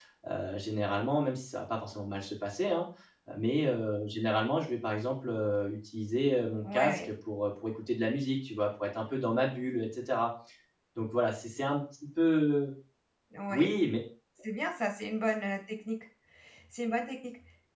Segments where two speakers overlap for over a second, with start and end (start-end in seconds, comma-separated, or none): none